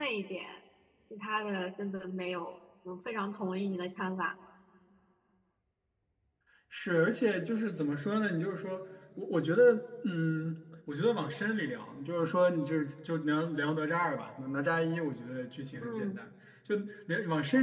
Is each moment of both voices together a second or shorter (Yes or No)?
Yes